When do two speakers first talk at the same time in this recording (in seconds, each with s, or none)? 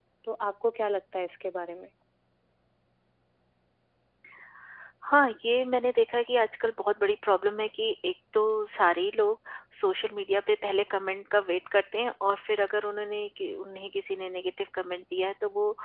none